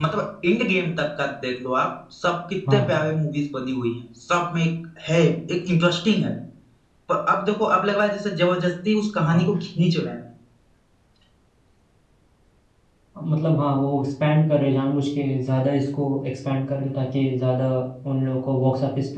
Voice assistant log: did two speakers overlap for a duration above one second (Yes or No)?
No